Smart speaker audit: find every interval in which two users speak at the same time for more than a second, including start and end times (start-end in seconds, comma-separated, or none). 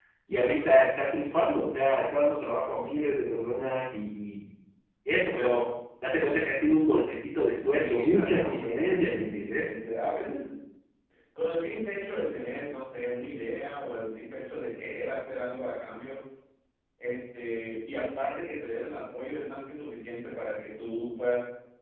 7.8-9.7